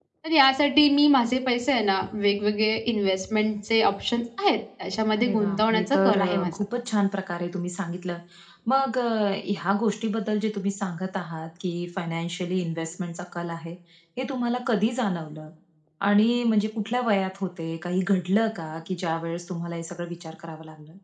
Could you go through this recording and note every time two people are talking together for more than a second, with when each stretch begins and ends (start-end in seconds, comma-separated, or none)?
5.2-6.5